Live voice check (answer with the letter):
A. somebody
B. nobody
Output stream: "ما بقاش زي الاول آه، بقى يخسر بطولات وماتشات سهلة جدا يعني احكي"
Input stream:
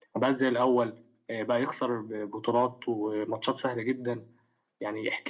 B